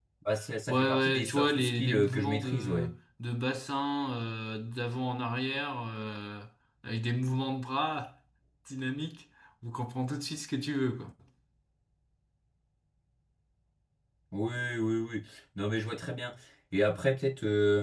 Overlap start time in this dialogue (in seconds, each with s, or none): 0.7 s